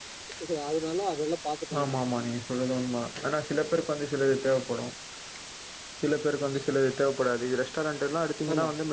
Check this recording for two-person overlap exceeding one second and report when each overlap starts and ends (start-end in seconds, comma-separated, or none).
none